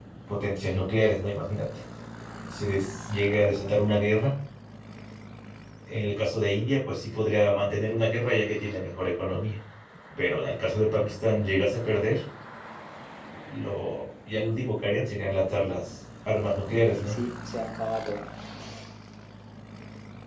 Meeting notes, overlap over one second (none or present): none